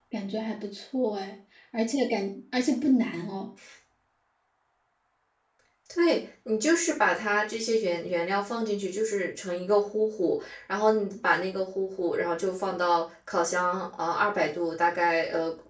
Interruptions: none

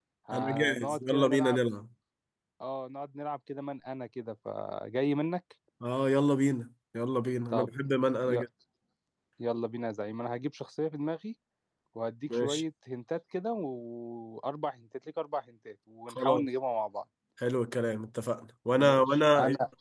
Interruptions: present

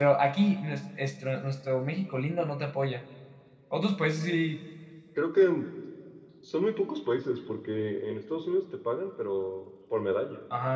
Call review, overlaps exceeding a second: none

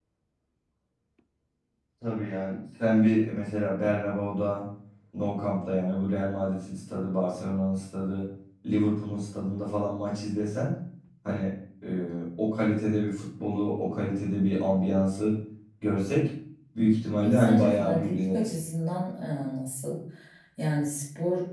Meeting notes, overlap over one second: present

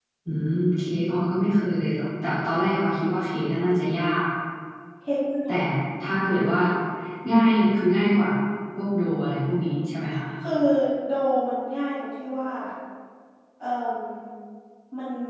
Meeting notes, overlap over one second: none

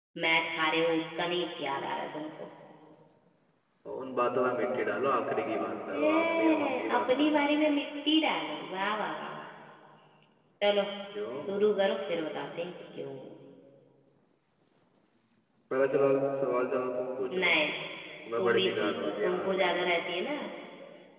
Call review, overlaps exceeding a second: present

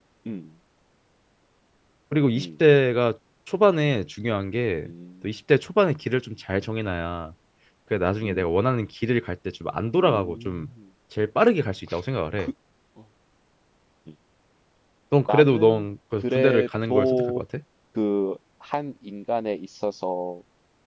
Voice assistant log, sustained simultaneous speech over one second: present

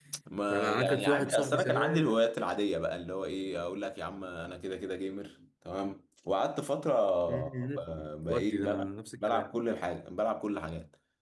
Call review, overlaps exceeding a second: present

